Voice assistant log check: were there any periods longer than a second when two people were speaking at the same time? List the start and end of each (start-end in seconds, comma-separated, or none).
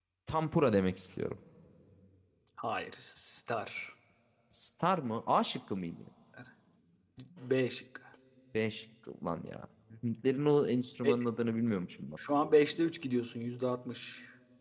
none